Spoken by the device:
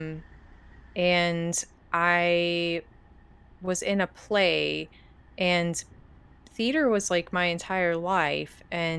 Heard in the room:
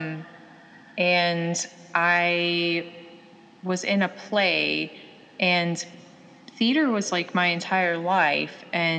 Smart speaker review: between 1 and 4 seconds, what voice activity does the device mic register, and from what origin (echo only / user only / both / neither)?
echo only